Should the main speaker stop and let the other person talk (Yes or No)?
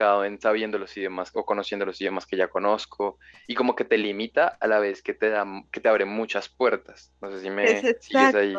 Yes